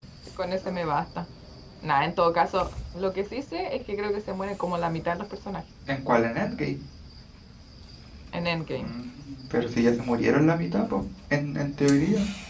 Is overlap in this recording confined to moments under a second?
Yes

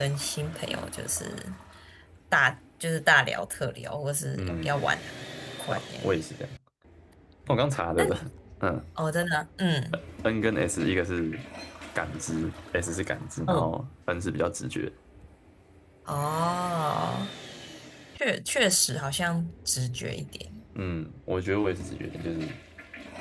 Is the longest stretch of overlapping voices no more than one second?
Yes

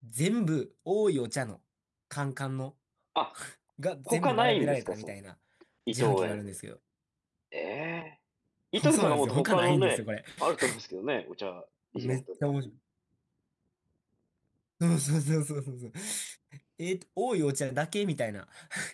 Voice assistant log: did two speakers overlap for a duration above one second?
Yes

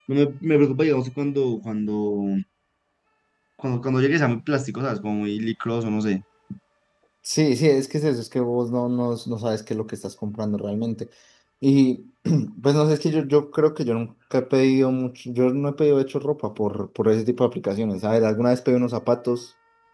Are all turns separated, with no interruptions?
Yes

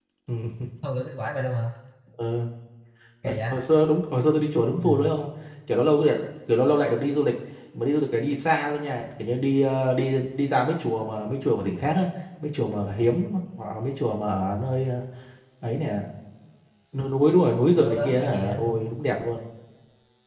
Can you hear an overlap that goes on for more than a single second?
Yes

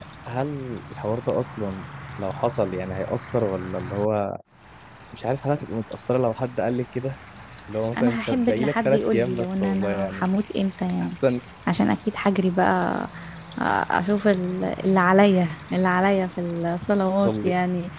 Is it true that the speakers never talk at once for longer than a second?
No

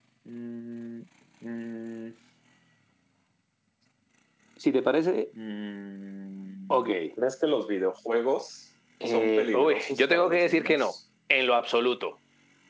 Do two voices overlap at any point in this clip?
Yes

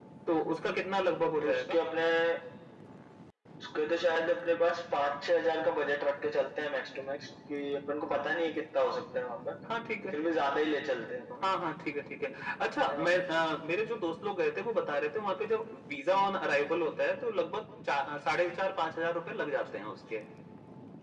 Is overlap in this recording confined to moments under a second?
Yes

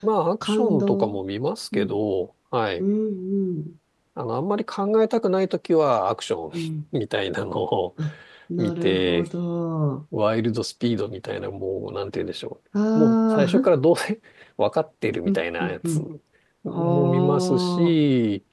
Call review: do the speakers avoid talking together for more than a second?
No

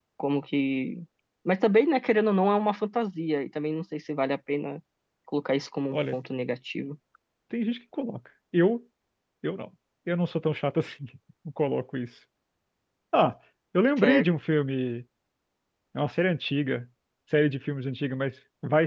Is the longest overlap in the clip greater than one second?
No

